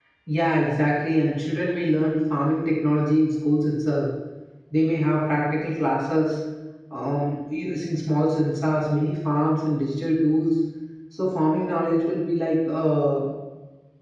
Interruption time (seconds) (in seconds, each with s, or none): none